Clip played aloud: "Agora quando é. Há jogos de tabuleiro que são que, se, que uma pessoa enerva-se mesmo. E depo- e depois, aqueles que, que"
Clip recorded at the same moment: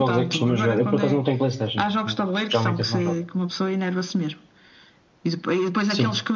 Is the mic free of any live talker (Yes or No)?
No